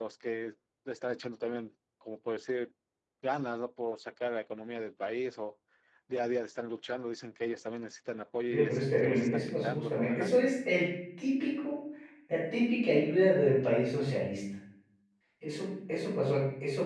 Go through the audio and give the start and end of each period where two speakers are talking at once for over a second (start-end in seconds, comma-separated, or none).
8.5-10.3